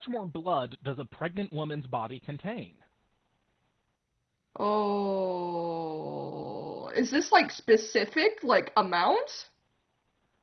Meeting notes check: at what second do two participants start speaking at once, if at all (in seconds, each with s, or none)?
none